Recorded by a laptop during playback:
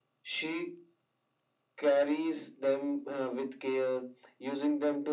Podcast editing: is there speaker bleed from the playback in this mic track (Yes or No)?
Yes